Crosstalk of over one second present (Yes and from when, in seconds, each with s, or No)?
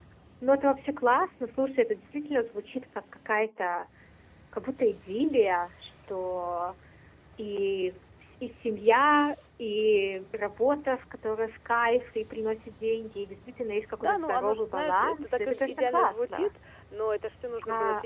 Yes, from 14.0 s